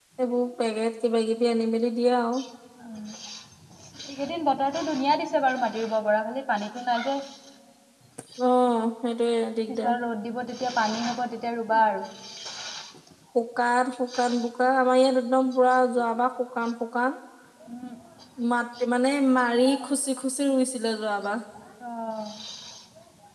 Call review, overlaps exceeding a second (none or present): none